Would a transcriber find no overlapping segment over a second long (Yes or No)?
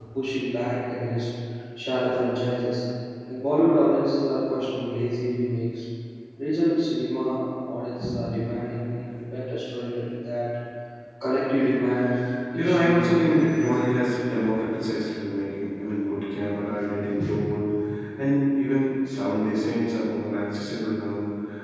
No